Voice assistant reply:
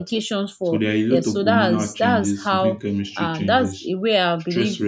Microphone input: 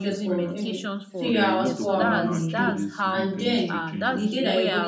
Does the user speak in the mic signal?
Yes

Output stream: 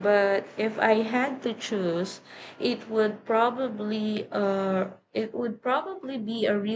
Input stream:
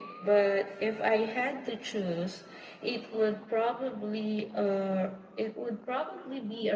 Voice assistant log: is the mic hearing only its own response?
Yes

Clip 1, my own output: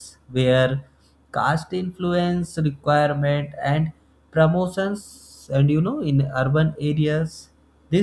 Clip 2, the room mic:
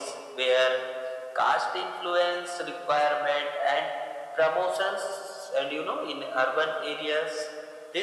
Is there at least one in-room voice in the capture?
No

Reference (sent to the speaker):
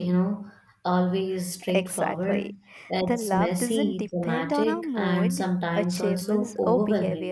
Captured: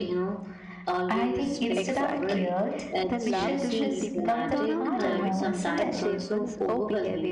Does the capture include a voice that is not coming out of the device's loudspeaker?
Yes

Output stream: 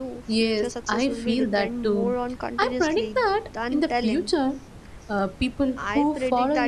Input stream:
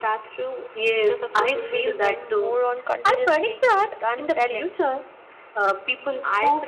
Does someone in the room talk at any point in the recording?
No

